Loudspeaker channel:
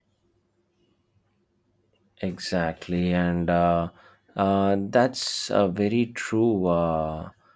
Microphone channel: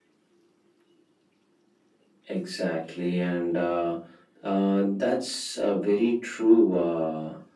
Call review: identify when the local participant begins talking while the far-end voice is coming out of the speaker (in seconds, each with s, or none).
none